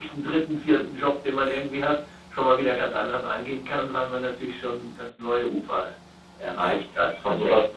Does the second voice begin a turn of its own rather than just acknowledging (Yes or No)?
Yes